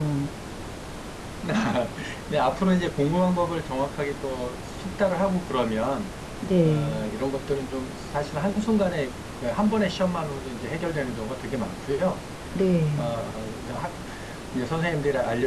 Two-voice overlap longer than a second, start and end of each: none

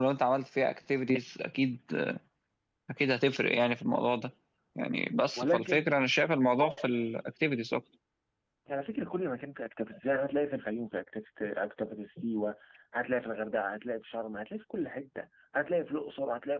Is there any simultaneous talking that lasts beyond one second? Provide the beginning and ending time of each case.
none

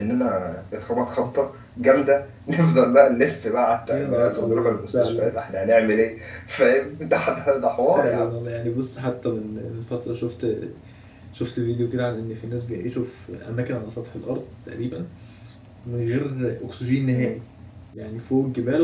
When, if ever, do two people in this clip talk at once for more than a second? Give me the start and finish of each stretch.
3.9-5.4

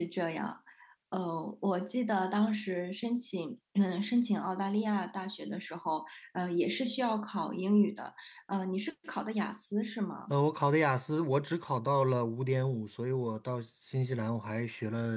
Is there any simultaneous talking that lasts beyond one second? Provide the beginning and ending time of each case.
none

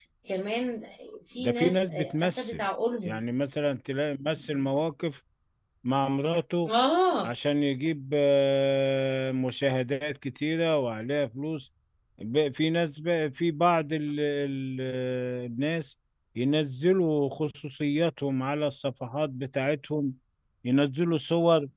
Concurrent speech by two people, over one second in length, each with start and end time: 1.4-2.6

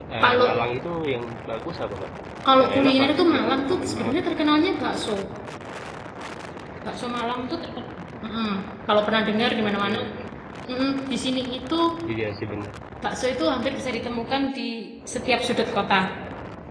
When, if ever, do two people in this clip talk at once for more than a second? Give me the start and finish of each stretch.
2.6-4.2

